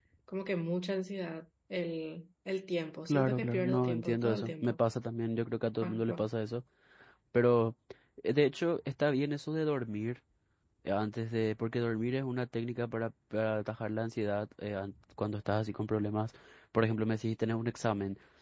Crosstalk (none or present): present